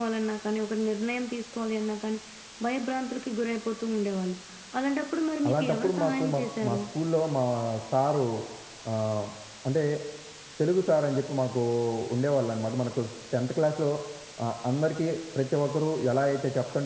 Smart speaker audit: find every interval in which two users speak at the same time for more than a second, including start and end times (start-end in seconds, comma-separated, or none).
5.5-6.8